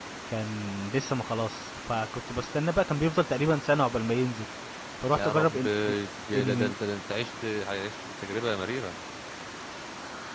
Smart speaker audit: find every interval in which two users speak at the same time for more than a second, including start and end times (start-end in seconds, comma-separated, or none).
none